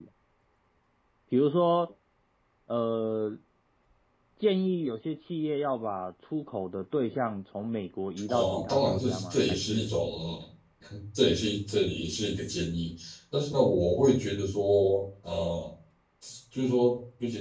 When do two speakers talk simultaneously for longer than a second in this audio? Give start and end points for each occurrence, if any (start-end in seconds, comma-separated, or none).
8.3-9.9